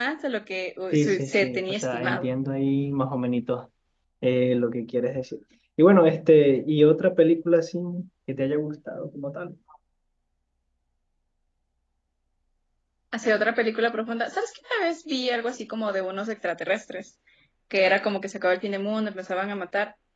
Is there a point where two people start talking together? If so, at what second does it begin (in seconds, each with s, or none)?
0.9 s